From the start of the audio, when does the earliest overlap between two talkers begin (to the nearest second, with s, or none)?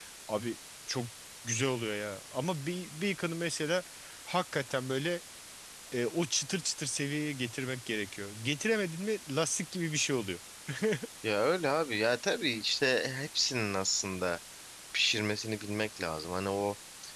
none